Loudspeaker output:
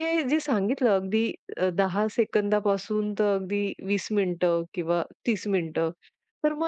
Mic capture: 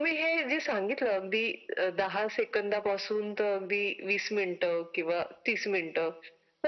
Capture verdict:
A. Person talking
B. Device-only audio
B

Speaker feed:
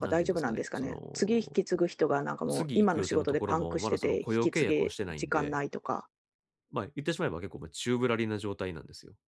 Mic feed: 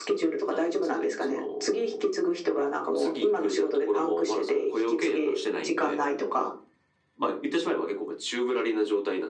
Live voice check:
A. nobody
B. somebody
A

